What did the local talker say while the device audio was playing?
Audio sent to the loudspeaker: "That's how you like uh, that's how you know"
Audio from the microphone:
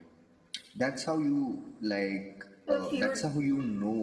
a few

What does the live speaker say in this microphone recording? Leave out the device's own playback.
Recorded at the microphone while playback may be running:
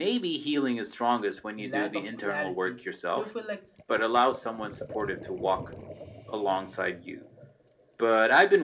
lack of clarity do you feel like

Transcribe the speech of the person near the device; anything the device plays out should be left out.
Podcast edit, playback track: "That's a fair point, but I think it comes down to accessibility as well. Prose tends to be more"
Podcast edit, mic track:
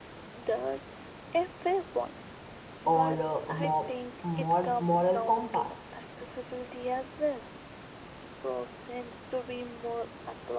or uh, a more, more moral compass,

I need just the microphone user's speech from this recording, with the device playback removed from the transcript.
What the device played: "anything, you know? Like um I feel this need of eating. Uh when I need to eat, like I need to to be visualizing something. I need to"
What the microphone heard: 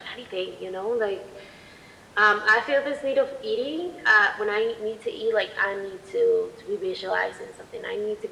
none

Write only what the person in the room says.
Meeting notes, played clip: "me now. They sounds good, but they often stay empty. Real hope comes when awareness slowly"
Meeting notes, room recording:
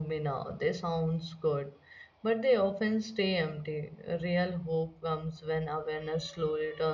none

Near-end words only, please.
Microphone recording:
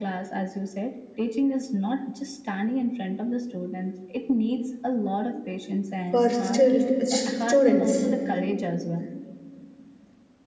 for still students

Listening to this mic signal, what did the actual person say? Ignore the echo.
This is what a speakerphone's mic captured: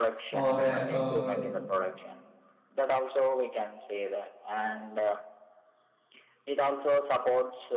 or uh, uh,

